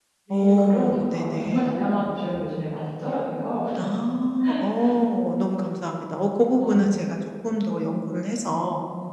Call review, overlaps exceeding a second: present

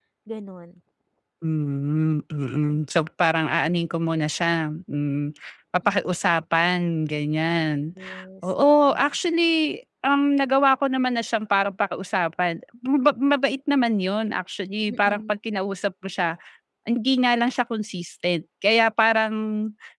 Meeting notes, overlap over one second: none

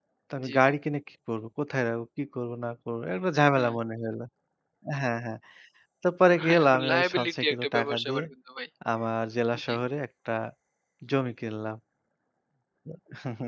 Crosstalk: present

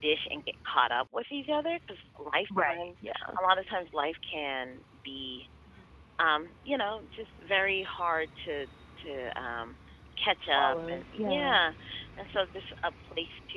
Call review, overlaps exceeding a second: present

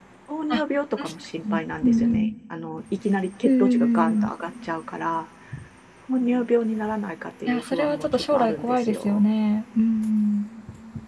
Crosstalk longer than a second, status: present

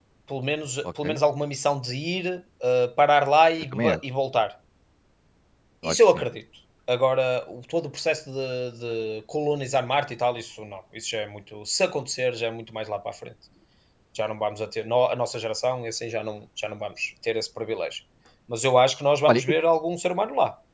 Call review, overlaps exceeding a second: none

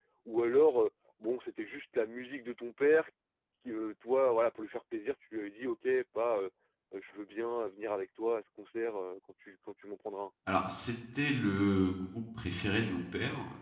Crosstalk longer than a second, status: none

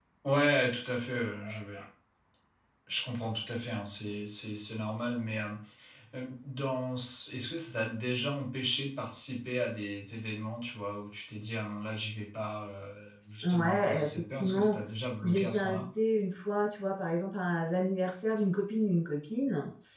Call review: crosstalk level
present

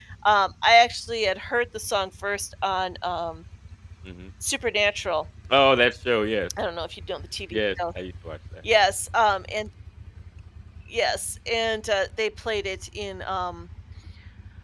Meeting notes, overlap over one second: none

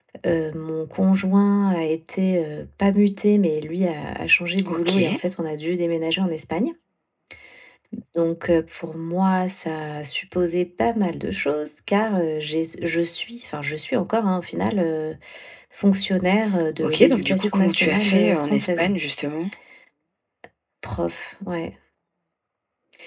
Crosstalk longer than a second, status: present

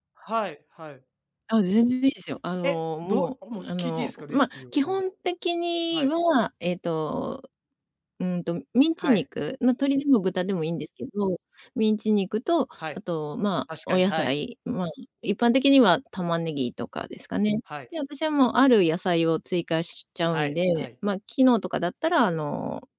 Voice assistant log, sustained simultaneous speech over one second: present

